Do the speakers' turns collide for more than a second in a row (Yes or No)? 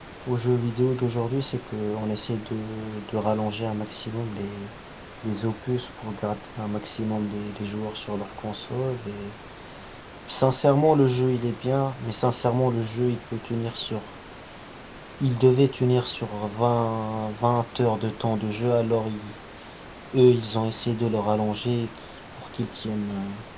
No